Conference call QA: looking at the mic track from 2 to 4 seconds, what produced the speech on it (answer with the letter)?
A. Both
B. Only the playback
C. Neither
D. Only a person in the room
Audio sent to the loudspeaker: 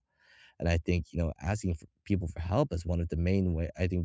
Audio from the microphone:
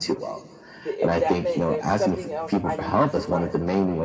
A